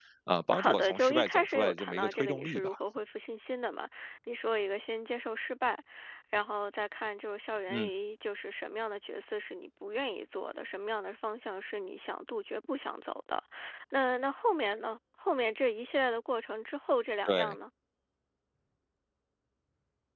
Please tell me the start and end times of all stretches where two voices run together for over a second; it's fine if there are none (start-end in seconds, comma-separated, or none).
0.6-2.7